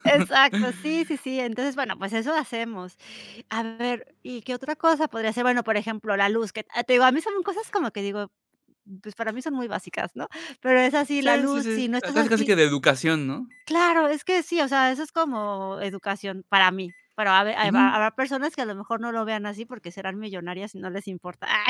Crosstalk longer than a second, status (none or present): present